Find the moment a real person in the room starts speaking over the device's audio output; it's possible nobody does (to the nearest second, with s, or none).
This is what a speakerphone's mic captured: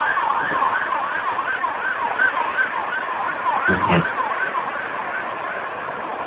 4 s